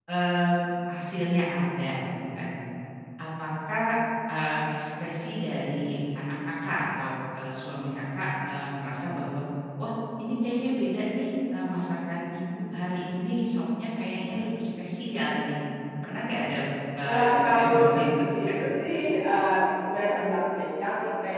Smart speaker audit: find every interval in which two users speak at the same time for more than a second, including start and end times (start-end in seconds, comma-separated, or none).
17.0-18.2